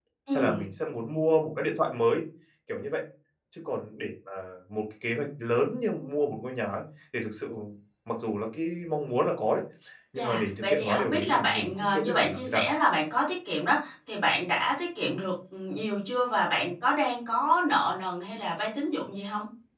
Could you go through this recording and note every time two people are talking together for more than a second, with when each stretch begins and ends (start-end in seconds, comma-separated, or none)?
10.2-12.7